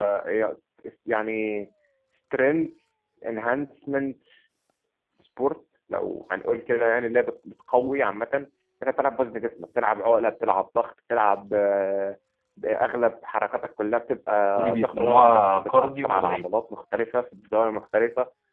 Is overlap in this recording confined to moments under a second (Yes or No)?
No